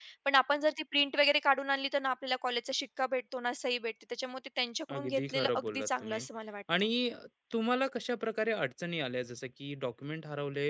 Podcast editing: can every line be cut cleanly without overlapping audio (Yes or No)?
No